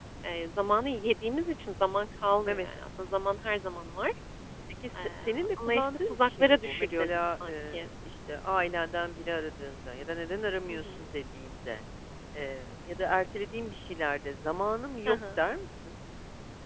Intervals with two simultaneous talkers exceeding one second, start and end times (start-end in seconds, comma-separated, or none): 5.6-7.9